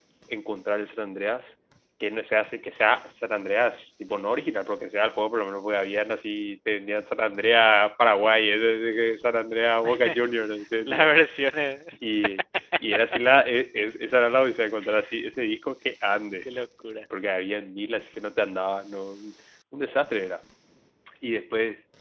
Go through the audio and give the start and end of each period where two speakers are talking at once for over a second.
none

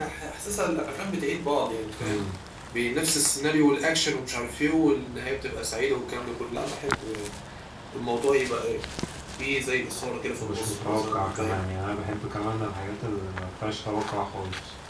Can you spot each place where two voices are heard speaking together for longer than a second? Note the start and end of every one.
10.4-11.6

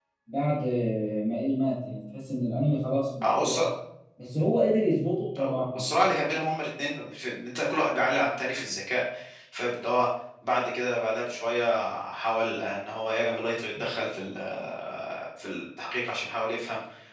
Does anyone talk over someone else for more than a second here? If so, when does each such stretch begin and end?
none

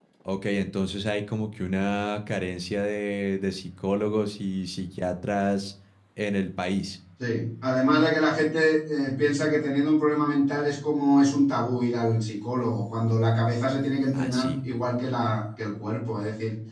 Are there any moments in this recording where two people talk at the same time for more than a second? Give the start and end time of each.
none

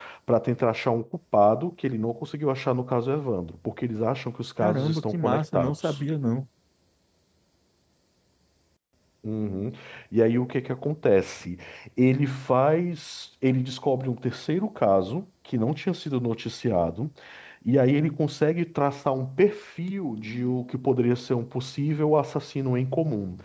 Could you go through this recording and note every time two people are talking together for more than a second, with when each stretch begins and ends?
4.6-6.0

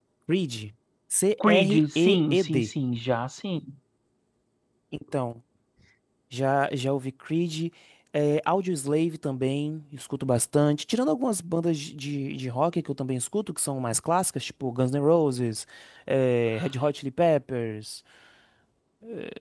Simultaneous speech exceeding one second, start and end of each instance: 1.4-2.7

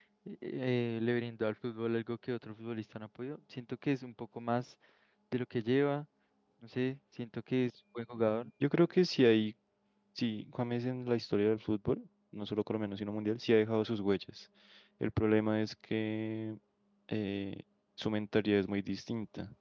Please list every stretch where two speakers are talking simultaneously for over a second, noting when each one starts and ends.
none

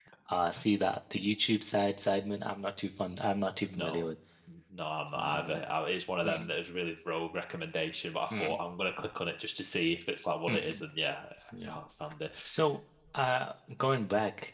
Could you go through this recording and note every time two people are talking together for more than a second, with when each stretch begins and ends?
none

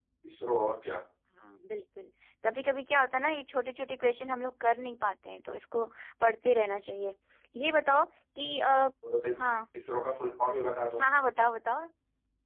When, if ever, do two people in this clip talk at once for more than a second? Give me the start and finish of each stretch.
none

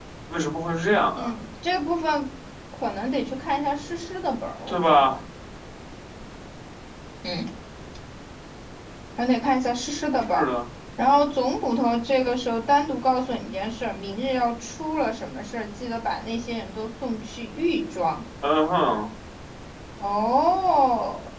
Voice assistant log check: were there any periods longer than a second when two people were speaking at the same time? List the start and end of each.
none

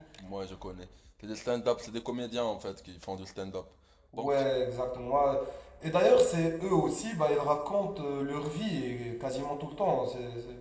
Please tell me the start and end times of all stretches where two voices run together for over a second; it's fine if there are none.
none

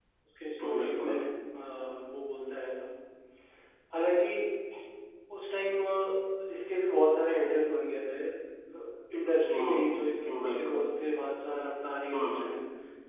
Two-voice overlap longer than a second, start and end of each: 9.4-10.8

